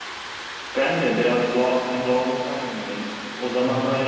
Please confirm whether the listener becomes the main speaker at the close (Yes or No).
No